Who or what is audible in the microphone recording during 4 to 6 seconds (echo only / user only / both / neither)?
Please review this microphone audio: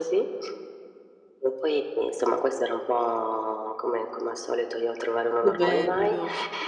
both